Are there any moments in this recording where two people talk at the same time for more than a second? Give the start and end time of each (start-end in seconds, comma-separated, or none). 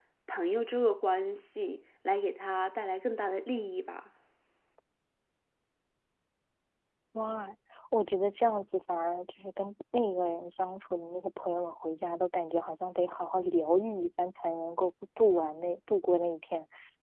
none